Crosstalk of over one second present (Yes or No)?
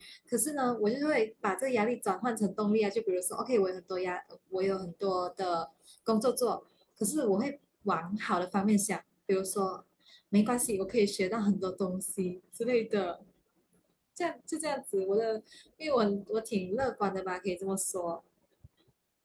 No